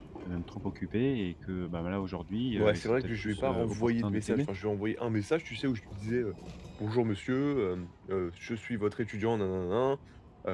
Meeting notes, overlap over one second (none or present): present